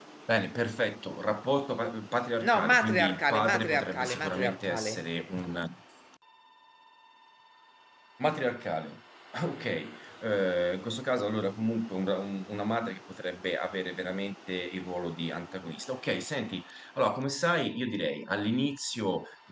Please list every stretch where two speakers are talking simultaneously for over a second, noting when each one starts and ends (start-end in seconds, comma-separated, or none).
2.5-4.9